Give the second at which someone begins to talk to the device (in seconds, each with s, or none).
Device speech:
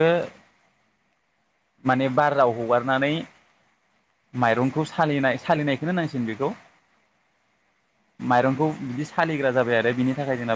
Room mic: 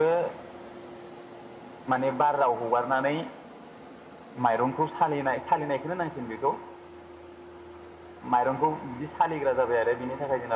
none